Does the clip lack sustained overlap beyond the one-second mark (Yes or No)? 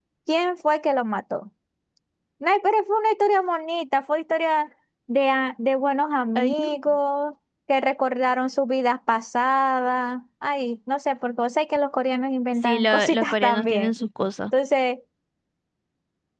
No